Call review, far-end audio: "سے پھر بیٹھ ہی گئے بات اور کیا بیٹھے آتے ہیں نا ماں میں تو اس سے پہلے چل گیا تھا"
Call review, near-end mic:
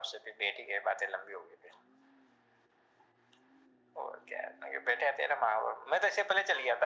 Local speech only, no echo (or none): none